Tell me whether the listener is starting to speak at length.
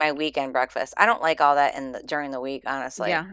Yes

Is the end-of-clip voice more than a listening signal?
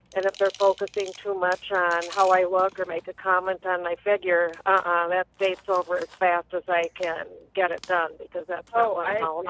Yes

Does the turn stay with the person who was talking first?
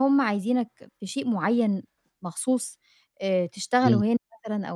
Yes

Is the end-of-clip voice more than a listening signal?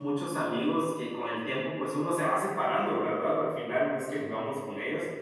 No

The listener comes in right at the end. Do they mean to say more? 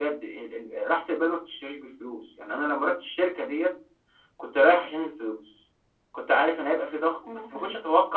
No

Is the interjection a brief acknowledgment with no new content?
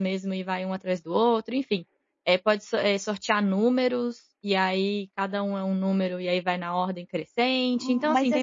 No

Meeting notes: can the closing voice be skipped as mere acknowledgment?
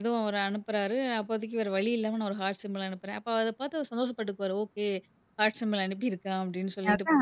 Yes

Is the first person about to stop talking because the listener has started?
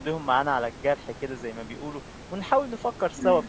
No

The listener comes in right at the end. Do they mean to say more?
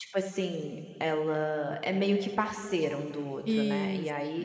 No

